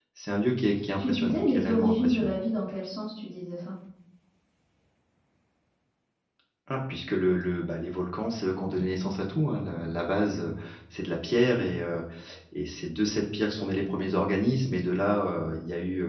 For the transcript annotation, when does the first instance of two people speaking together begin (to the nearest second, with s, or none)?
1 s